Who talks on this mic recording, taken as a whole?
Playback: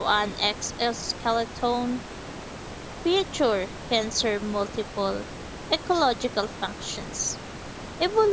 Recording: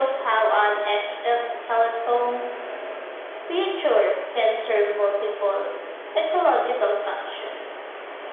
echo only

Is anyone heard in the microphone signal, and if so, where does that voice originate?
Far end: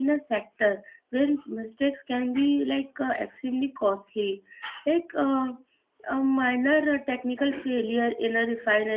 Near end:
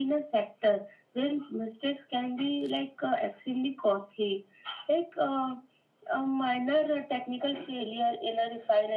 echo only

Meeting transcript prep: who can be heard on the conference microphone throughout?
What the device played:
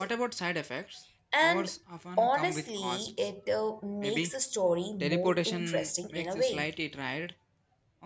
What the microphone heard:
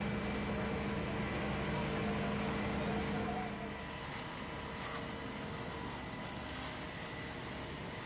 neither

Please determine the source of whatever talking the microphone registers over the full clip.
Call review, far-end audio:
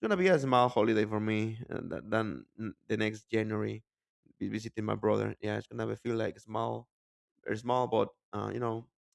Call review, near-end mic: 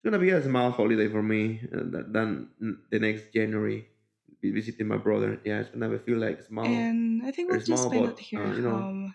both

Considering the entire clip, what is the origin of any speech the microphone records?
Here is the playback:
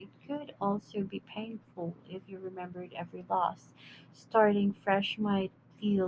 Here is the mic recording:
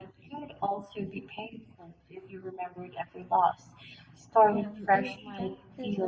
both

